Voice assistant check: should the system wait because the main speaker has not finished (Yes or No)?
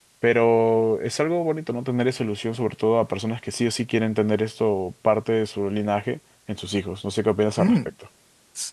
No